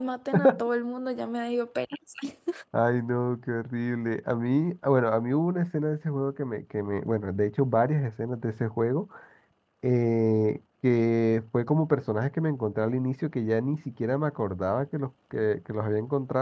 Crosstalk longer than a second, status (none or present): none